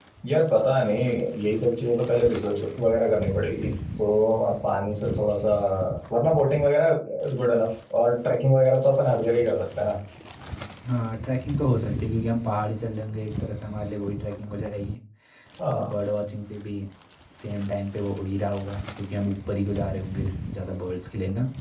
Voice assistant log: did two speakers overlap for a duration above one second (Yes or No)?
No